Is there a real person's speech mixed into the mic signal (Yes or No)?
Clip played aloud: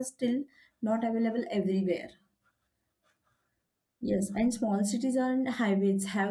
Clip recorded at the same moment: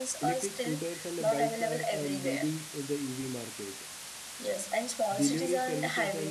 Yes